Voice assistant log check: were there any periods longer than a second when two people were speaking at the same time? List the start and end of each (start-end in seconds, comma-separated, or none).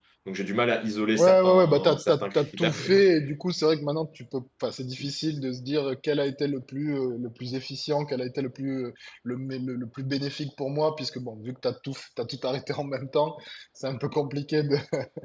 1.2-2.7